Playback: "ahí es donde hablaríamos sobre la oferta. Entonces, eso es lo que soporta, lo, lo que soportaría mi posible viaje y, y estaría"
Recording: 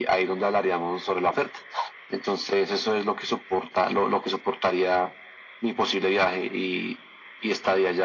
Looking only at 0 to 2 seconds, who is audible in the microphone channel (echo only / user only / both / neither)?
echo only